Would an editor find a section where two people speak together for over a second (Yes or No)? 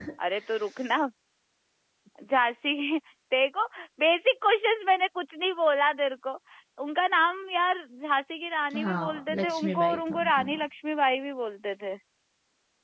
Yes